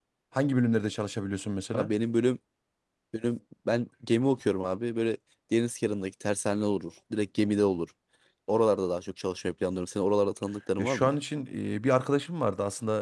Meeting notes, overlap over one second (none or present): none